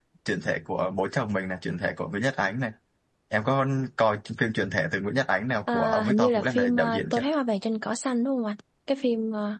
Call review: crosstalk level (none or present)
present